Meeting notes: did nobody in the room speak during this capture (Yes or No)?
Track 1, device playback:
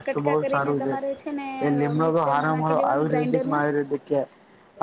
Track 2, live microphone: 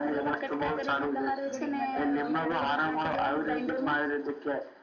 No